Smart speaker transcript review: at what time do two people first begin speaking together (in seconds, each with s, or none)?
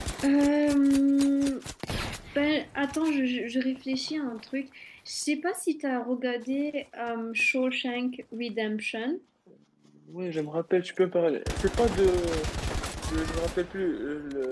none